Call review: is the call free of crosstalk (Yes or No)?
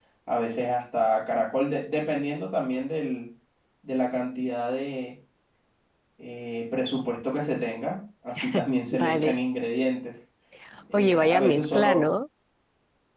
No